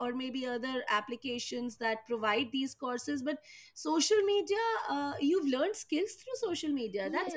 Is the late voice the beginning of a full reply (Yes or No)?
Yes